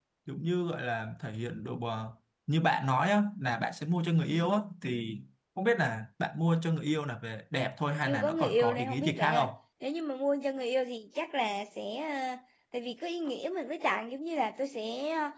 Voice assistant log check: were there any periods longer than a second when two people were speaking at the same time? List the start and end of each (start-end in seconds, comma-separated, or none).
8.1-9.5